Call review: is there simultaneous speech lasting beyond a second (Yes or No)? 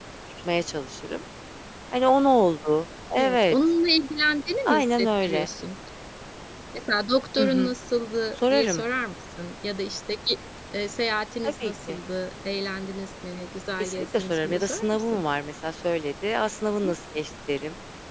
Yes